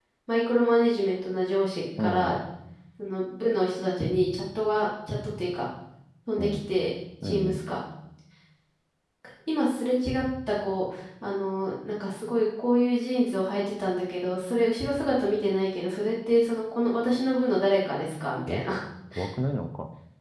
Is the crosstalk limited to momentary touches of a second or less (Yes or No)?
Yes